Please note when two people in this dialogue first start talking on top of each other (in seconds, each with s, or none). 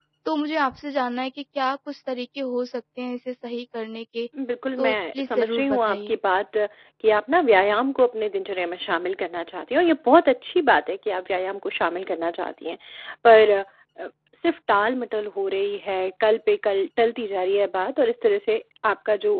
4.8 s